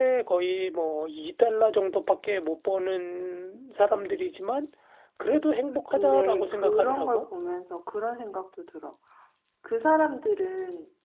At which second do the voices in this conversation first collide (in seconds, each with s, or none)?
5.9 s